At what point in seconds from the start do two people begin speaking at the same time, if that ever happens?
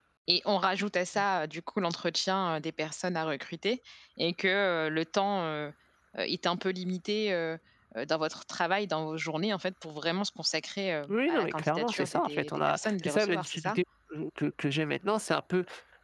11 s

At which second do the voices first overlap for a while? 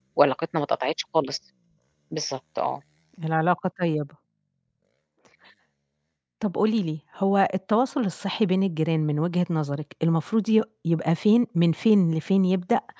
none

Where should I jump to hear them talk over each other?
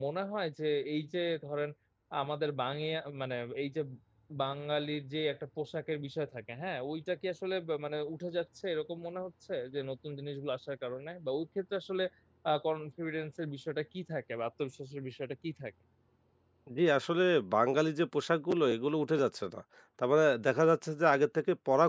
none

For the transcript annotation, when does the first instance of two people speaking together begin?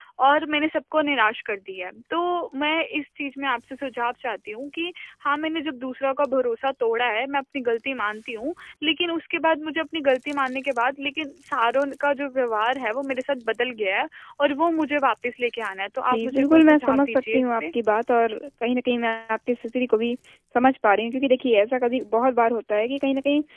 16 s

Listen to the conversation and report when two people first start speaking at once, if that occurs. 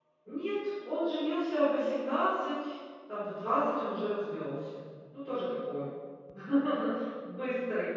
none

